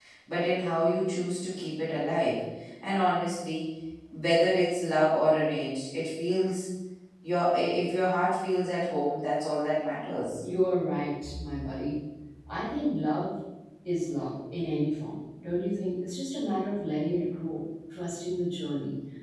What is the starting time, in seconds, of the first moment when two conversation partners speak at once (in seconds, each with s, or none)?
none